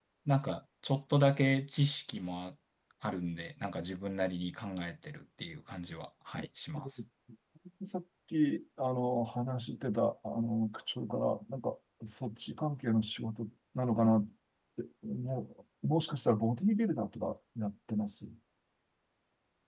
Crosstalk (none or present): none